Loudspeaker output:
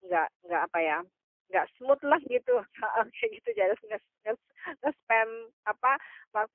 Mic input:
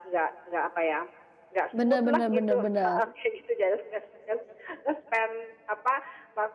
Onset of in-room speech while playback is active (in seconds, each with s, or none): 1.8 s